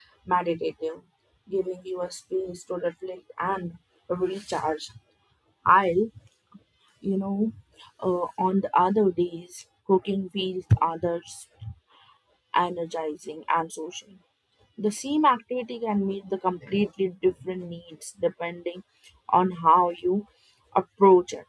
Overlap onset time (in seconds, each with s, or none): none